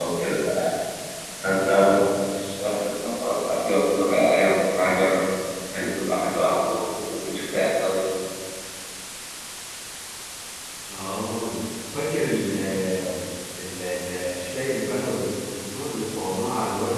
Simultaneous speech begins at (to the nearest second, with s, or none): none